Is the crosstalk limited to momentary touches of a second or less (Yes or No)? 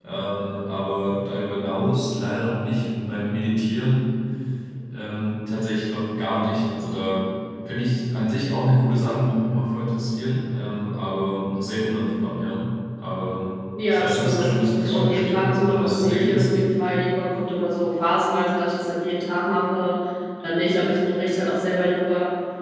No